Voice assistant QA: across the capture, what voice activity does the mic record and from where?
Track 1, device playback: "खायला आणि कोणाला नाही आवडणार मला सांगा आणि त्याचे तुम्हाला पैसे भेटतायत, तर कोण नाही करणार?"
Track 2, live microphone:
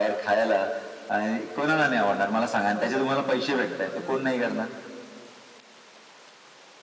both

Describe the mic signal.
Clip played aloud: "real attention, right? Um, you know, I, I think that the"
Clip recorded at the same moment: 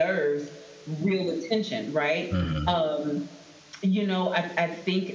both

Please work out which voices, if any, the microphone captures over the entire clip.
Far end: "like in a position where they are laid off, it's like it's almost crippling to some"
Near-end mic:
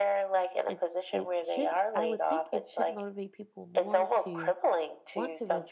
both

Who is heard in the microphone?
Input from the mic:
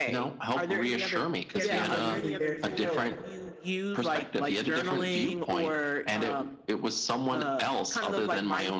both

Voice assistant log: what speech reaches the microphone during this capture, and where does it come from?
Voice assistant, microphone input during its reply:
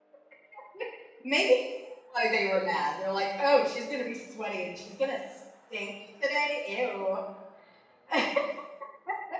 user only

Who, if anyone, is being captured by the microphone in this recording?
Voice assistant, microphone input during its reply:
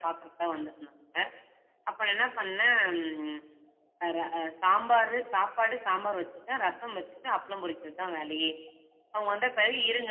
echo only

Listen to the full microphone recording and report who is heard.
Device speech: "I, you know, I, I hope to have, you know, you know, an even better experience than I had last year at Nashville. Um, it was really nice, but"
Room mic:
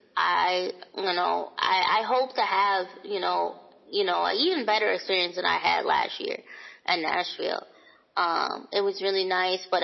echo only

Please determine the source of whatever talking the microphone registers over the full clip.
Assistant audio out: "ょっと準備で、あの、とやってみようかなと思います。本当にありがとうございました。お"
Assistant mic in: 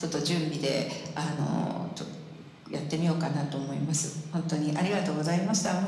echo only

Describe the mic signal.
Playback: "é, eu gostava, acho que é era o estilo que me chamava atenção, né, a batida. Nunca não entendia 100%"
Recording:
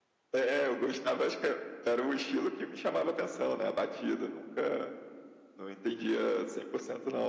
echo only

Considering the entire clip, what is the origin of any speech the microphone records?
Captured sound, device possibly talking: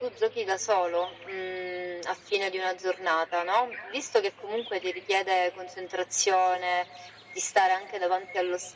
echo only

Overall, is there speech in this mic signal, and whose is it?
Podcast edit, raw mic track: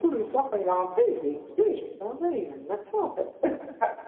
echo only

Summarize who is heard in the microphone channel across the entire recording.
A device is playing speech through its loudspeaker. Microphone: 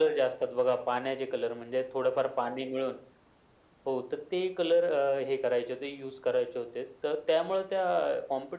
echo only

